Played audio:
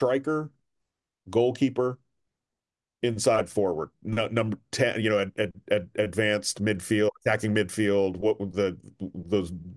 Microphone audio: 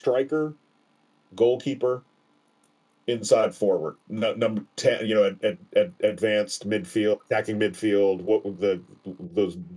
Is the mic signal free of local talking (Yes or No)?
Yes